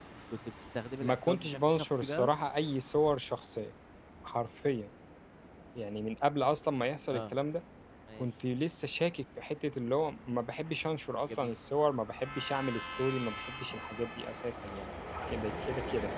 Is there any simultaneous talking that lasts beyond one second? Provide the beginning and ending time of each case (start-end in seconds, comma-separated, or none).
1.0-2.3